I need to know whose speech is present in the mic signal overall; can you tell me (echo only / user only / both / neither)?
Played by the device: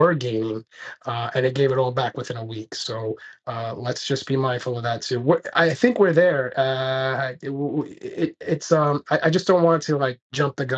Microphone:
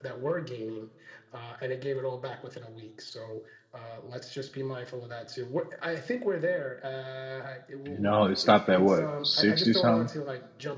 both